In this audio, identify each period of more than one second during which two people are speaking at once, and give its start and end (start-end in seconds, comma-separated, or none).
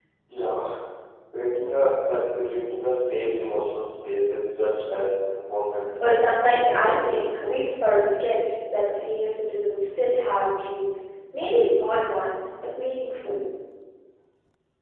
6.0-7.3